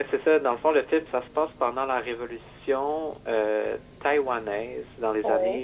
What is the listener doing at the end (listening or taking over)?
listening